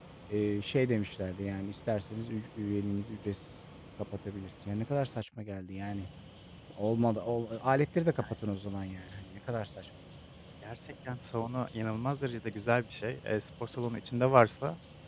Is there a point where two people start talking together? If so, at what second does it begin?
none

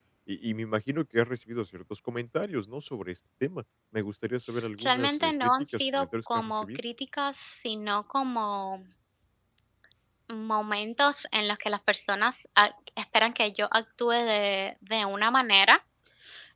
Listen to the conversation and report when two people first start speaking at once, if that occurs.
5 s

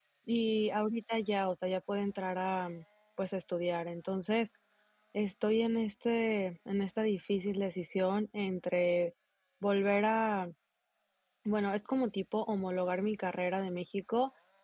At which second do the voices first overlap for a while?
none

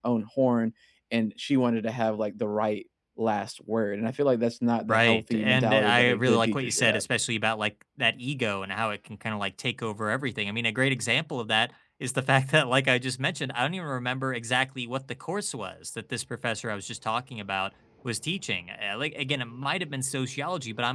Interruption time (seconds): 5 s

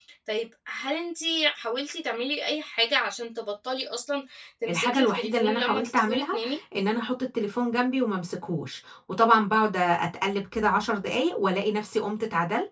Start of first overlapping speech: 5 s

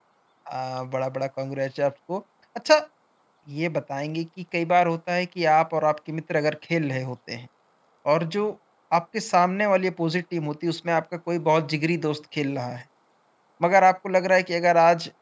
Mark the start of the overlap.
none

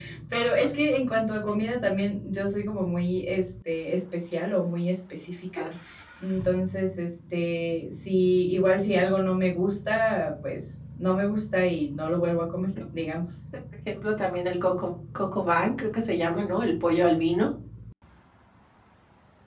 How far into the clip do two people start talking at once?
none

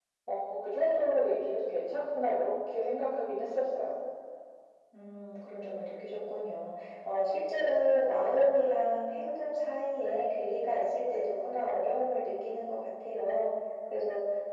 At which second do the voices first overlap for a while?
none

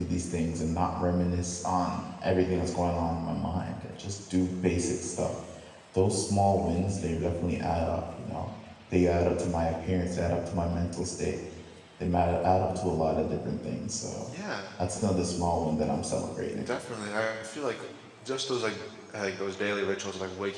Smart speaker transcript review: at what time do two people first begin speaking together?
none

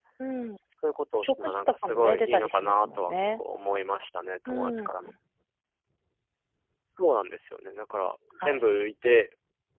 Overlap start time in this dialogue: 1 s

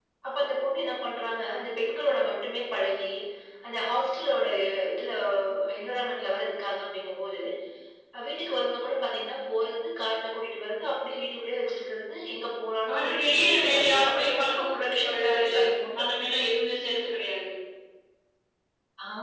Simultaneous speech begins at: 13 s

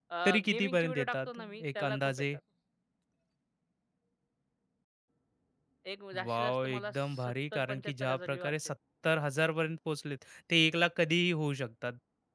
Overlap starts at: 1 s

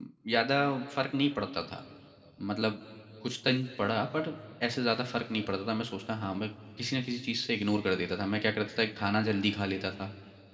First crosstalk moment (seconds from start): none

